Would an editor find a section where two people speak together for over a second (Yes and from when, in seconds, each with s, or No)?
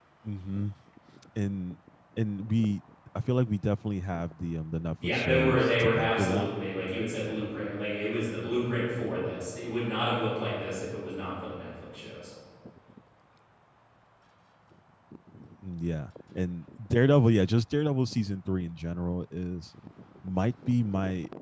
Yes, from 5.0 s